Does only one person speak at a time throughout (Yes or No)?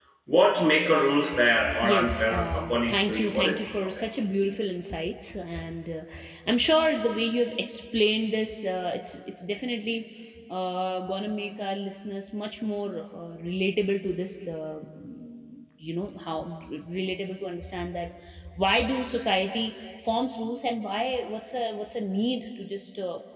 No